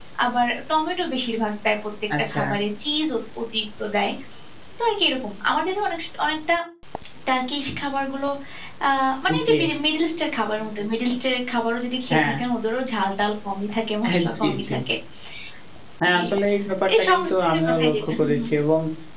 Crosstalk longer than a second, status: present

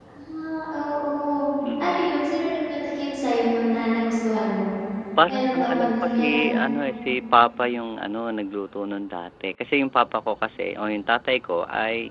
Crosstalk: present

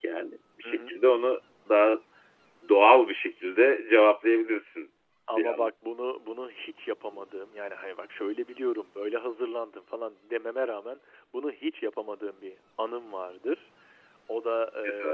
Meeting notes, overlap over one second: none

